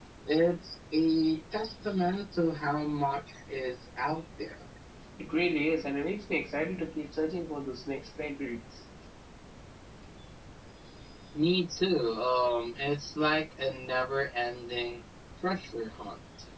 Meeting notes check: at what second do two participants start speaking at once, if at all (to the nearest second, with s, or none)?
none